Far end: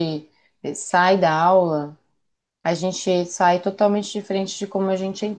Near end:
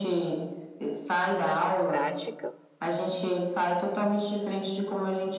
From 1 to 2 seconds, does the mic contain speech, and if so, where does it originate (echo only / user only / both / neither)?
both